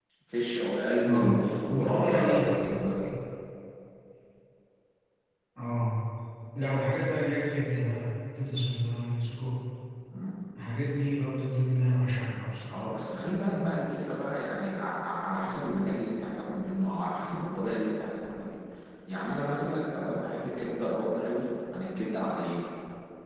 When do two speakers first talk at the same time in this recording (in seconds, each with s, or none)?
1.0 s